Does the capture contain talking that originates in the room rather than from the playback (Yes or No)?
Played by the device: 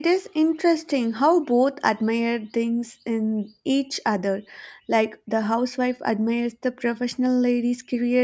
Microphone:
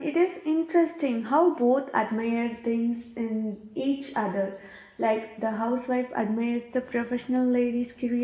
No